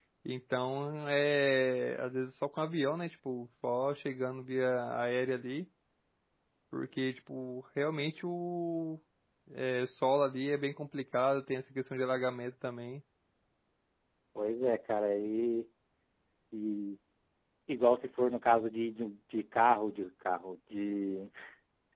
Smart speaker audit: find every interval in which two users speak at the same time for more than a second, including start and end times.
none

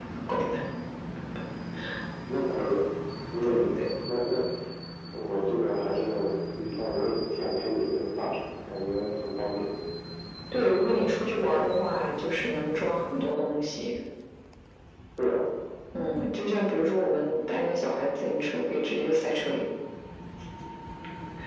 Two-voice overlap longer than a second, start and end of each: none

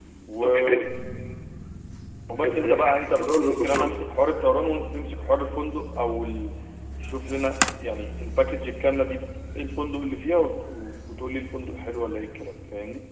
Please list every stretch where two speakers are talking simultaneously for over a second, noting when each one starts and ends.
2.4-4.0

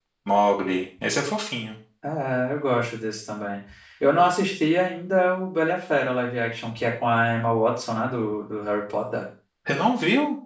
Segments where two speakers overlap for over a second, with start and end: none

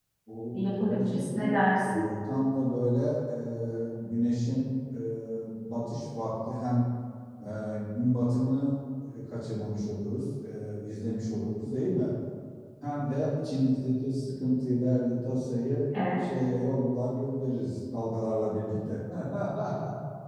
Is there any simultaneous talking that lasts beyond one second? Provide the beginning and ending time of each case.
0.5-2.0

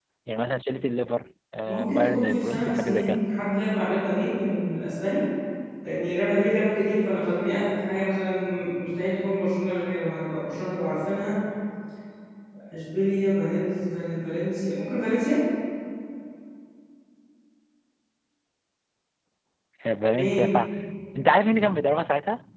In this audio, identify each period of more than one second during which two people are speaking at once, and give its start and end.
1.6-3.2

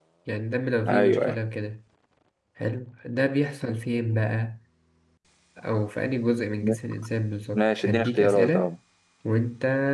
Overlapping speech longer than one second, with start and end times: 7.5-8.7

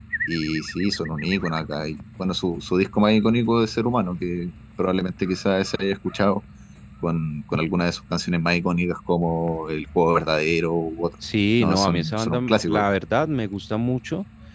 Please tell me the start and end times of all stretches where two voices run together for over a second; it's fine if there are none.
11.6-12.8

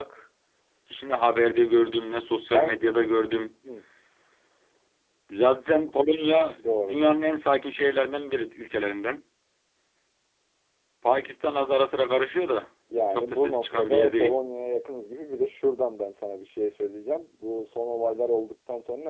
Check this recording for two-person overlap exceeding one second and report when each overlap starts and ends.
13.1-14.4

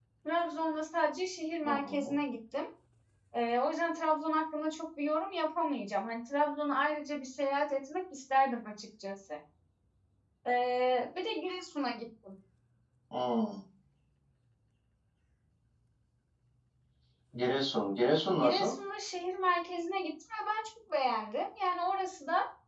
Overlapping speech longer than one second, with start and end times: none

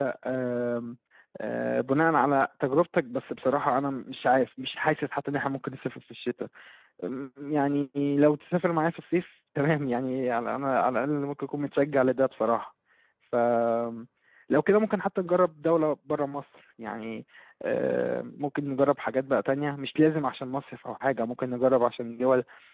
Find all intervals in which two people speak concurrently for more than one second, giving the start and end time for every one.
none

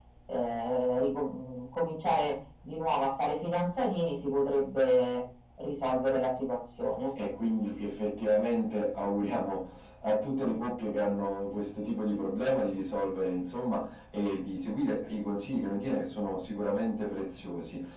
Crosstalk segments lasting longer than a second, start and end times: none

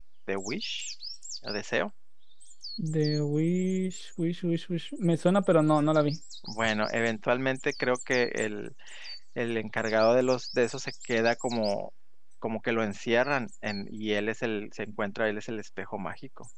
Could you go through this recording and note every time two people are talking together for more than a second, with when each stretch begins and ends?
none

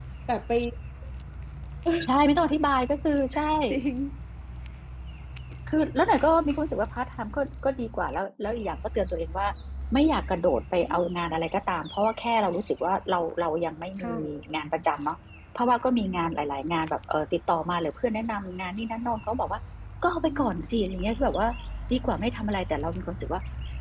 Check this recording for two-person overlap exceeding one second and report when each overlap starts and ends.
none

